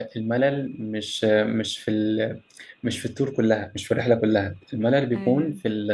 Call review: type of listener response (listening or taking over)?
listening